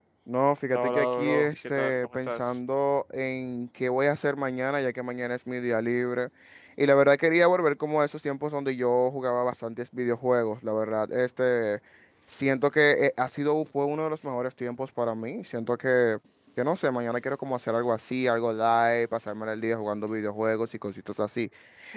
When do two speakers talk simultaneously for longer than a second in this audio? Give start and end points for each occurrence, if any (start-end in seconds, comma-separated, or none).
0.7-2.6